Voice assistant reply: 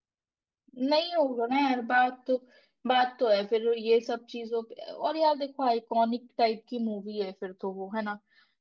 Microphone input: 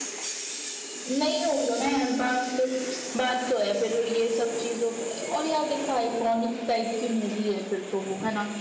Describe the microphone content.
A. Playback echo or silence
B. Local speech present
A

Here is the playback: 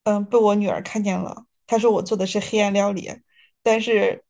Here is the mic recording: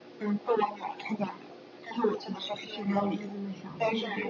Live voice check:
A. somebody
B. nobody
A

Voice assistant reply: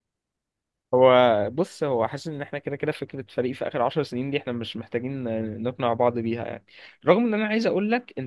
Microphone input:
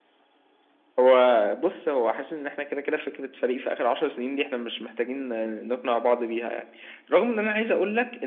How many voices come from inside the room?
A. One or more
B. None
B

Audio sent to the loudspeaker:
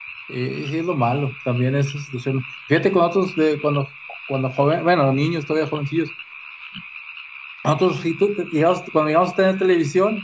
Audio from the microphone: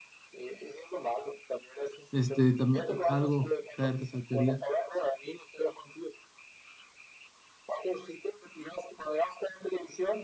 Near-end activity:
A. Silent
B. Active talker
B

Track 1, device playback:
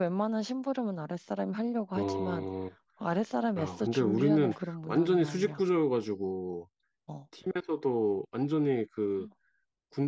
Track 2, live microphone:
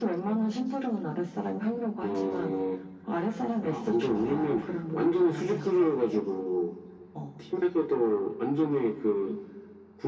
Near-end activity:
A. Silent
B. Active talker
B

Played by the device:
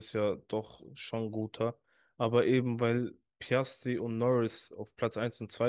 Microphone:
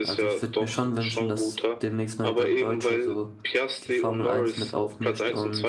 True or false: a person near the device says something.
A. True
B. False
A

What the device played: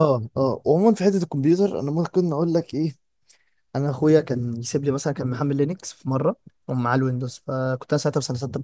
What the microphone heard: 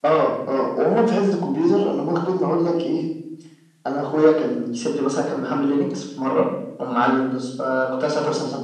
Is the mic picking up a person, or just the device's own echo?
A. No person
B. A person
A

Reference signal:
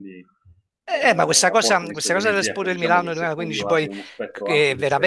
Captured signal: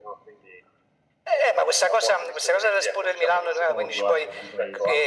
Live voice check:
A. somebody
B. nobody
A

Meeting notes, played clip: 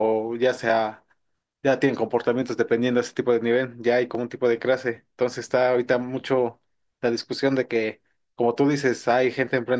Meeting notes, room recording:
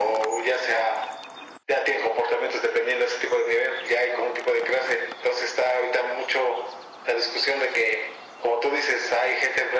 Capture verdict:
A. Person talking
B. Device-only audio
B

